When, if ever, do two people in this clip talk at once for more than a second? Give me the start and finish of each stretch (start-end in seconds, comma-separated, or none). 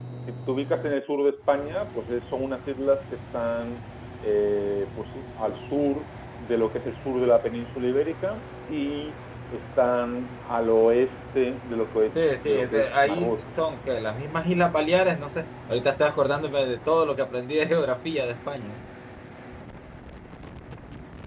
12.2-13.4